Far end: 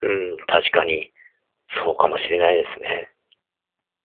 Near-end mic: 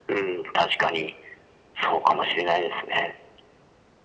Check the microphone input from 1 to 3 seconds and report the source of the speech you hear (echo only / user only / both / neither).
echo only